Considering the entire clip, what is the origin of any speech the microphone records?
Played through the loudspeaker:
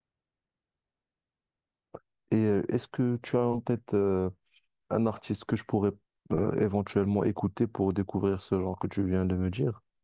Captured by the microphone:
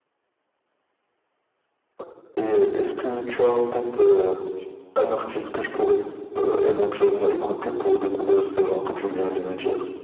echo only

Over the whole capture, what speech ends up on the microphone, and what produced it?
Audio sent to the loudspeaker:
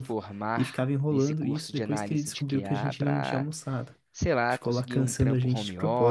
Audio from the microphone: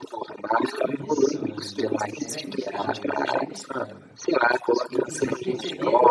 both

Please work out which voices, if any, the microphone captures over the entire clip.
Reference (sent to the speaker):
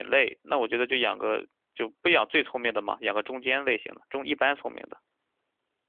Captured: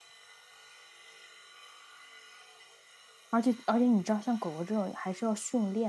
user only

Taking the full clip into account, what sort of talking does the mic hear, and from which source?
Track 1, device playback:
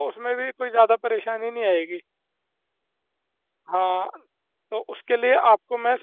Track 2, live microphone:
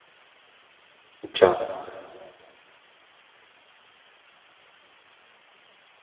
user only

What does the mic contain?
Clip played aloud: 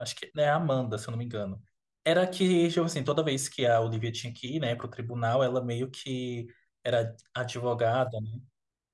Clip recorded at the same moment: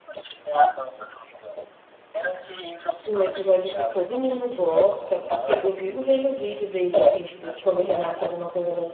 both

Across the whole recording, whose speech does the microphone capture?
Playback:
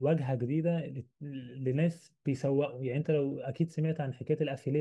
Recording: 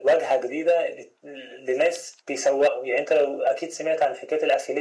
echo only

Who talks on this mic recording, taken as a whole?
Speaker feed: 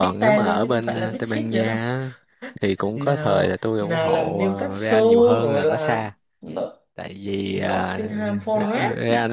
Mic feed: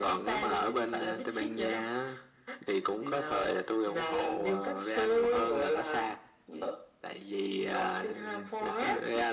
echo only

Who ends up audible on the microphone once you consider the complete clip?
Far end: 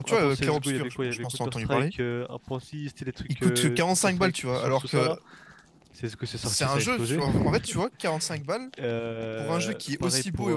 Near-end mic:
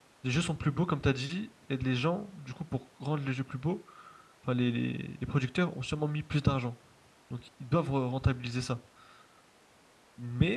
user only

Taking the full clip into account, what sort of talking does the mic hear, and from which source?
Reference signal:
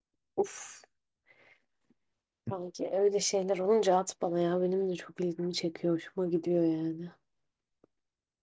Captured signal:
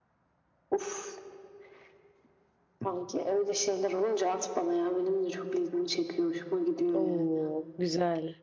both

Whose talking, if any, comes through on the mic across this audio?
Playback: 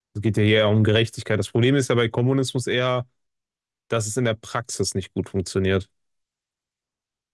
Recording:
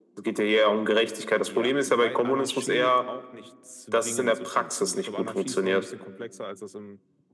both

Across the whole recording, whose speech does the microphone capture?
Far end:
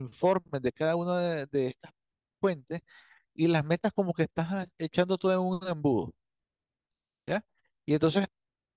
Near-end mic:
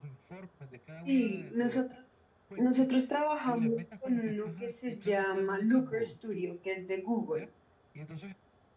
both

